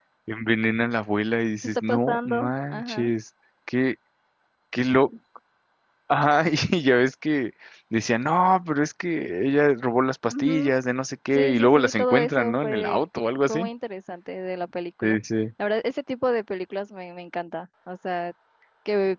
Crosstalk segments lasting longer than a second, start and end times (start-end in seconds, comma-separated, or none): 1.6-3.1, 11.3-13.0